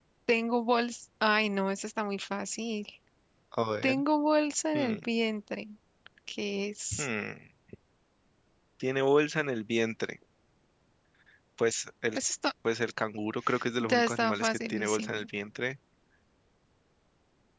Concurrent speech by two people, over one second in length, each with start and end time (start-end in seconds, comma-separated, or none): 13.8-15.3